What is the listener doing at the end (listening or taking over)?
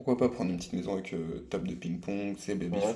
taking over